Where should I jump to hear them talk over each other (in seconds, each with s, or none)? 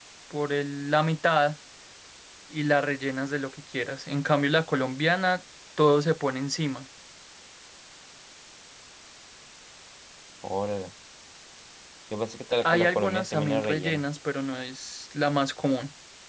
12.6 s